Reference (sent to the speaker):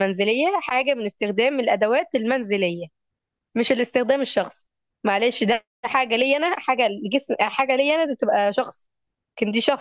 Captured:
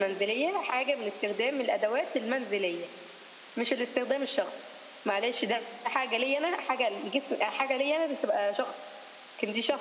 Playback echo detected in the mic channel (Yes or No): Yes